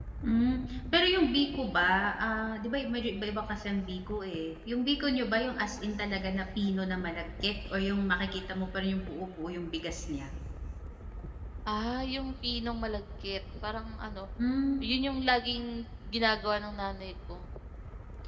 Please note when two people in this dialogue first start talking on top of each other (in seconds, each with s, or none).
none